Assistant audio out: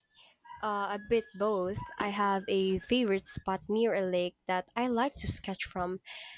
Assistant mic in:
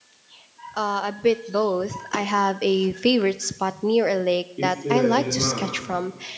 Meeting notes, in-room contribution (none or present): present